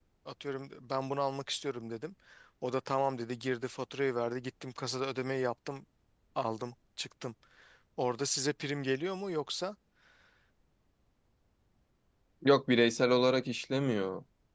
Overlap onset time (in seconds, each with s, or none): none